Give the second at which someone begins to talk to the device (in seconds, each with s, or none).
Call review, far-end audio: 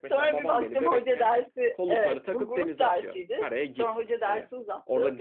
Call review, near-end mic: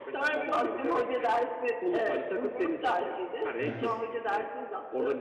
3.6 s